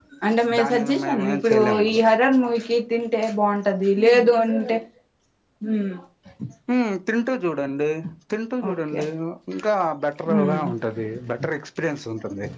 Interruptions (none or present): present